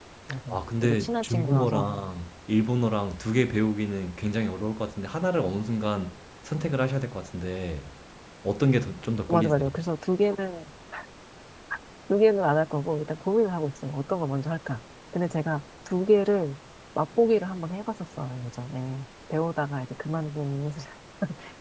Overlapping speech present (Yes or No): Yes